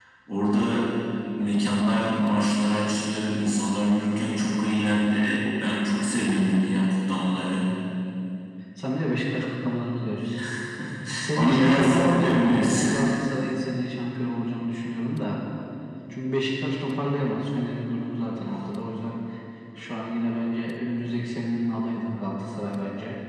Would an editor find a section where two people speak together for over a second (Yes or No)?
Yes